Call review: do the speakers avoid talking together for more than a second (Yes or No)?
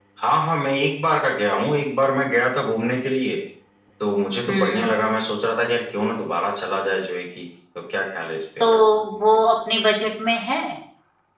Yes